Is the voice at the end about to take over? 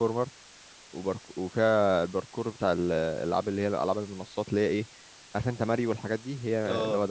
No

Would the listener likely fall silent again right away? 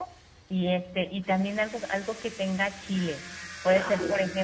Yes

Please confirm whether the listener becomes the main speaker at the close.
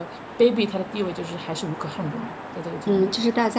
Yes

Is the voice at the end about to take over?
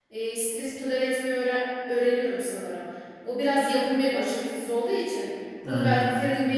No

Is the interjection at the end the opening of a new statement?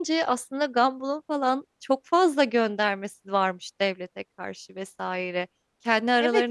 Yes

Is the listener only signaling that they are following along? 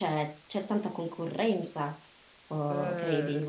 No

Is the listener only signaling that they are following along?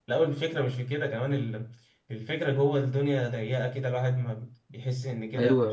No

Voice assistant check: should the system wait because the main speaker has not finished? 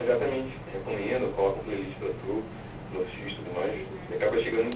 No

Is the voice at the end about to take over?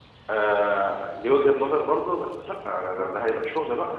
No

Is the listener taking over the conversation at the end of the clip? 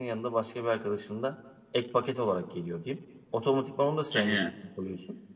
No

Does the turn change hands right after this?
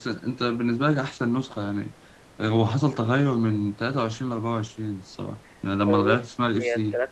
Yes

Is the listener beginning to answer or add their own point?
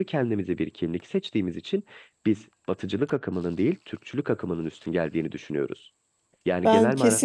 Yes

